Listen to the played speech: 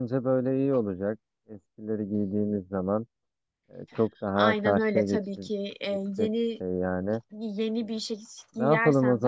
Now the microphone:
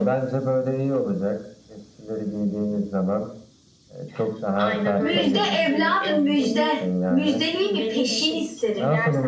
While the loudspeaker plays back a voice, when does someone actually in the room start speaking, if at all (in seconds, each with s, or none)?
5.0 s